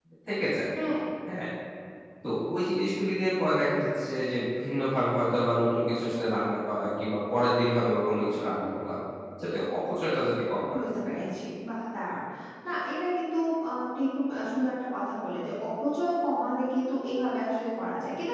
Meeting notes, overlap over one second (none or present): none